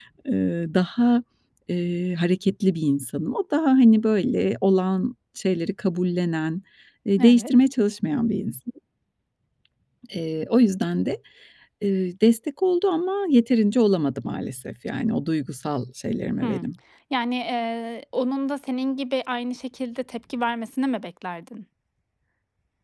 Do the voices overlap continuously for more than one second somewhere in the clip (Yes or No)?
No